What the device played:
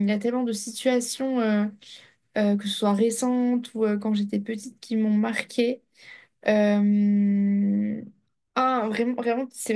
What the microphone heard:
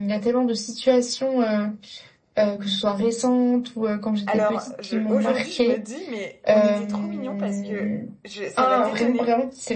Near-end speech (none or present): present